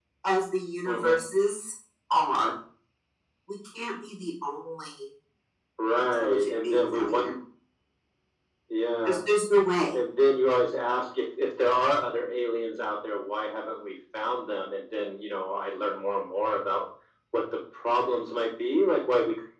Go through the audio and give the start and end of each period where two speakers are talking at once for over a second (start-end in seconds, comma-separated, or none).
6.1-7.4